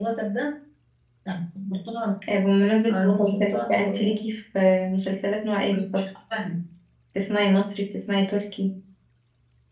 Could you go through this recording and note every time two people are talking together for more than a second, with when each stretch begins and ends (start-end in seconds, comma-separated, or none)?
2.9-4.2